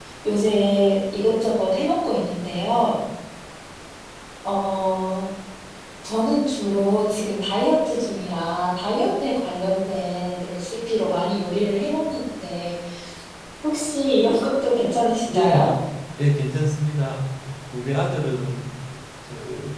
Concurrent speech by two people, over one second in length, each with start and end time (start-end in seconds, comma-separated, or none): none